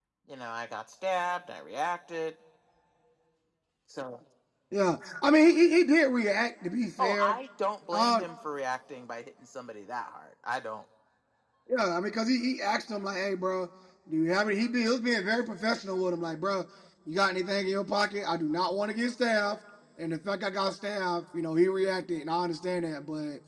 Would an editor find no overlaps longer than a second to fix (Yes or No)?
Yes